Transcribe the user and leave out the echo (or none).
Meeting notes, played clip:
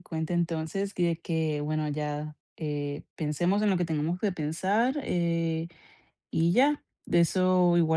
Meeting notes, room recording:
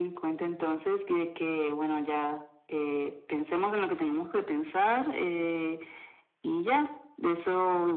none